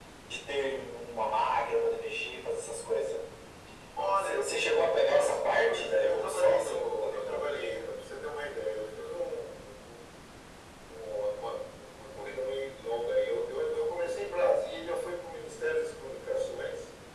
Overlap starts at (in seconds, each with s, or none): 4.2 s